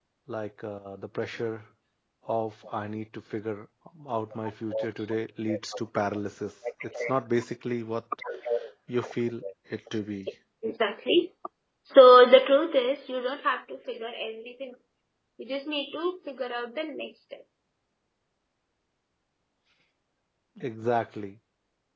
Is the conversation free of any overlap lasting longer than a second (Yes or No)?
Yes